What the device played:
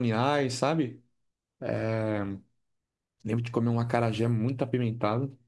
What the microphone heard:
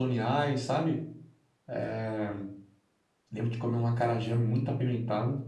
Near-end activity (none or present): none